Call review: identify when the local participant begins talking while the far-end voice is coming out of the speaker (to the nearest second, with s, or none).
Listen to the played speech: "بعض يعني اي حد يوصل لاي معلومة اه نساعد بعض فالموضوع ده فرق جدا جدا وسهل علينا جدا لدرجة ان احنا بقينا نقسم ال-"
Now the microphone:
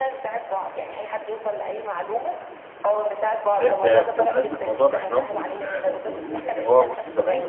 4 s